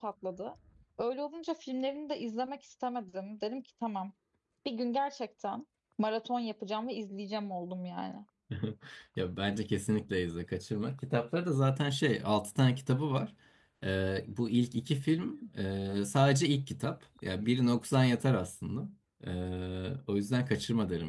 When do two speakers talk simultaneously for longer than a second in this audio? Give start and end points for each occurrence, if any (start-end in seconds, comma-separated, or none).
none